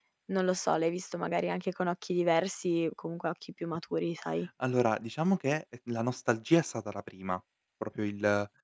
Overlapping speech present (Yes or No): No